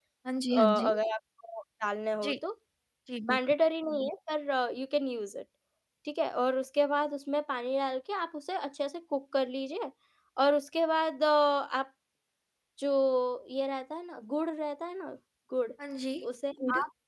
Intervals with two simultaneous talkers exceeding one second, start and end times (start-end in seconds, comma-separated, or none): none